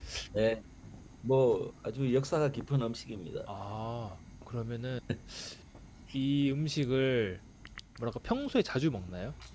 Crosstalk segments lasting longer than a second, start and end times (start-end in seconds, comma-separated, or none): none